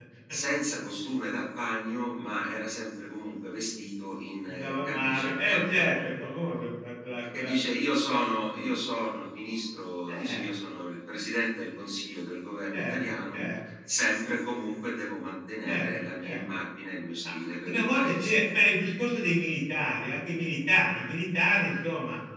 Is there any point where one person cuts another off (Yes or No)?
Yes